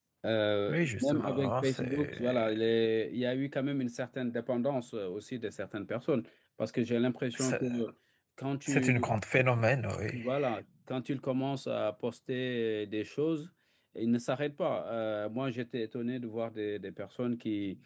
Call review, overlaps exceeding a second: present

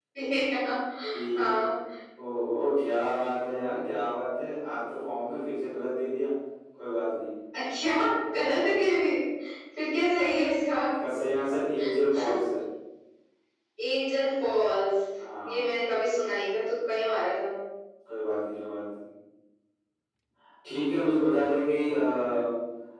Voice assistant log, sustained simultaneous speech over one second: none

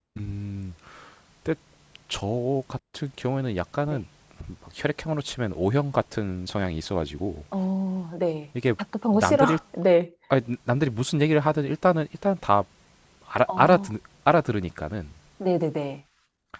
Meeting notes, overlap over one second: none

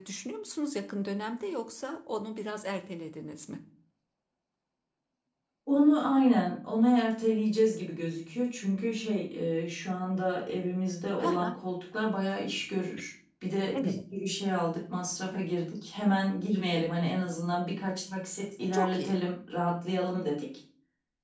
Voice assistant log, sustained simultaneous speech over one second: none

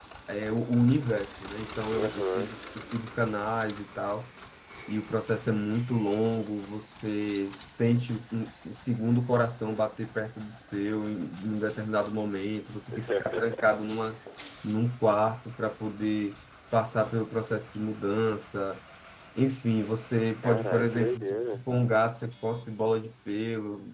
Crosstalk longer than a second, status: present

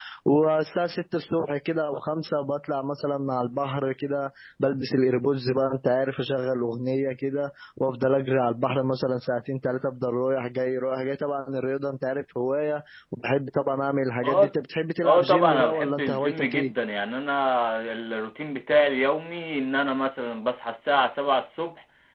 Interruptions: present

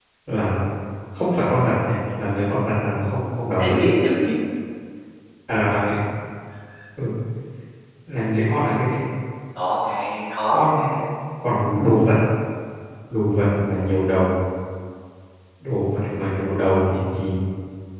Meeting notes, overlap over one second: none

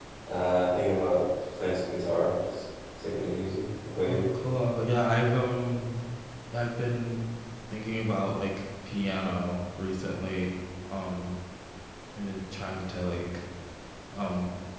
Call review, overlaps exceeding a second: none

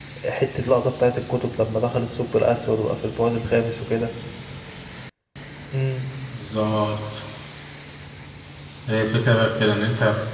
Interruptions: none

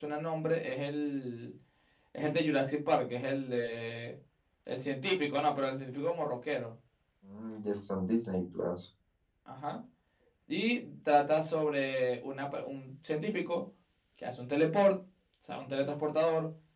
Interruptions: none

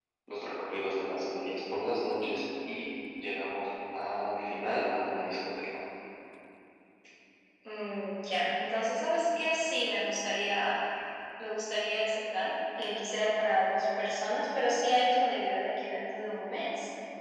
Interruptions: none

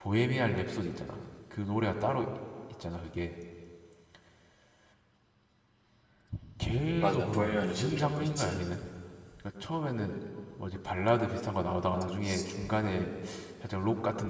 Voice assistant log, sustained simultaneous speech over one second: present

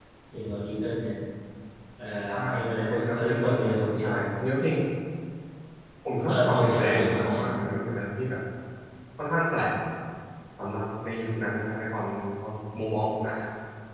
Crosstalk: present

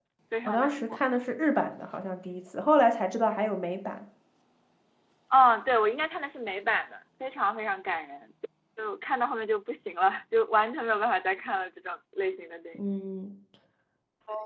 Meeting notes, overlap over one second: none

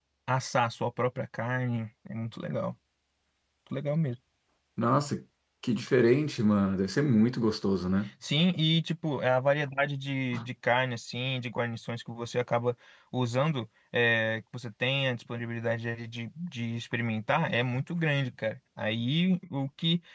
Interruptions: none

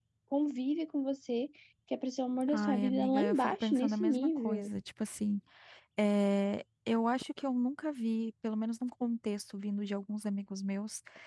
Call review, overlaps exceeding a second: present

